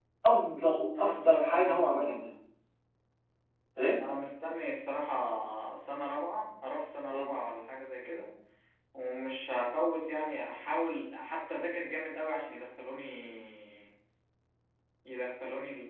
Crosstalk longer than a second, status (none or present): present